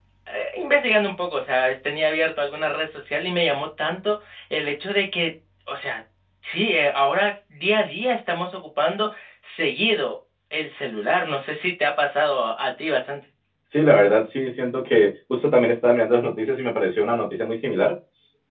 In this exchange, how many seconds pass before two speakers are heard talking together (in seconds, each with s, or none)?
none